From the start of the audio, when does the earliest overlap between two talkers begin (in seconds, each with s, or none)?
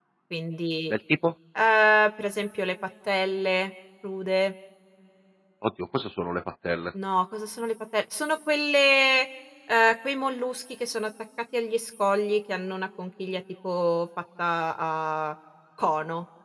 none